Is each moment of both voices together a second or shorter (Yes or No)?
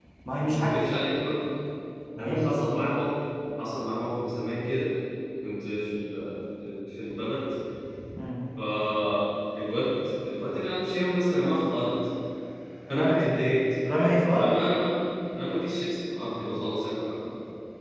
Yes